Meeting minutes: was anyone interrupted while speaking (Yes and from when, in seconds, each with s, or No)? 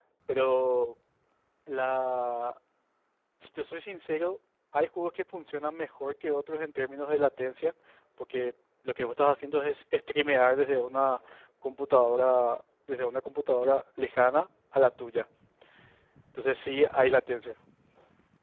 No